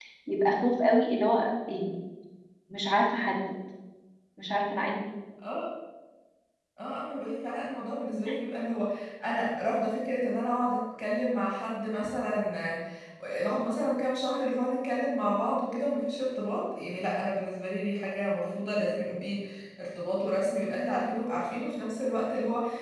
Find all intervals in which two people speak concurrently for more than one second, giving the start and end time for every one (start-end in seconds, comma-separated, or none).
none